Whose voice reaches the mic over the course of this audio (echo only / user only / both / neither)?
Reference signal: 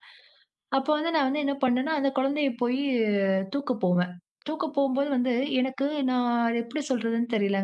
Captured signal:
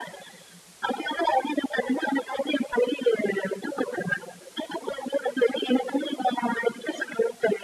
echo only